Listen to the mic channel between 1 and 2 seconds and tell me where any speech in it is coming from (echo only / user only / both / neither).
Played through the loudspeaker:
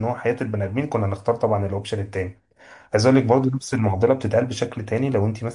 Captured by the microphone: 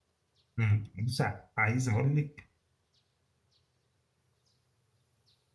user only